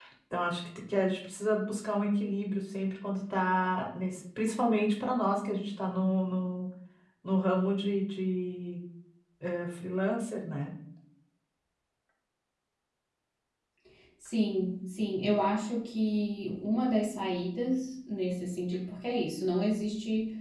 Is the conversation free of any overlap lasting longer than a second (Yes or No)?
Yes